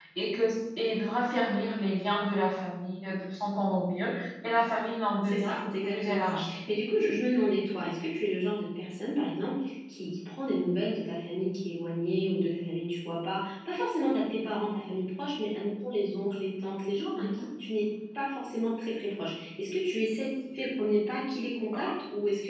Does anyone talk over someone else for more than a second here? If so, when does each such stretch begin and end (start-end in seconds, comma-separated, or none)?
5.2-6.5